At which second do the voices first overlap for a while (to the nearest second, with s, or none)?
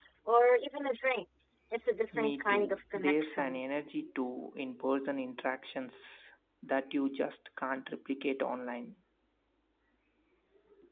2 s